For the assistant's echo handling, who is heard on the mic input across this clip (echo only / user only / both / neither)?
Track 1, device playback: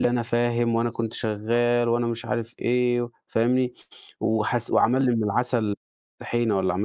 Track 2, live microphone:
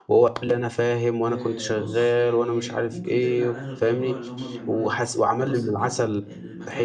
both